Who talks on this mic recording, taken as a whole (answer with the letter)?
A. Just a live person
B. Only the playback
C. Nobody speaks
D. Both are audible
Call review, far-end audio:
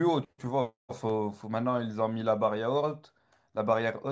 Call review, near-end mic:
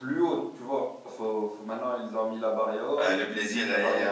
D